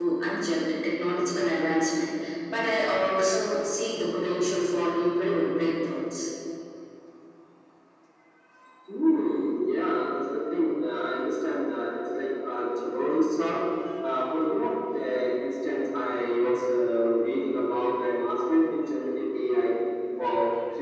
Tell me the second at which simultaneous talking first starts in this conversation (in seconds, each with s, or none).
none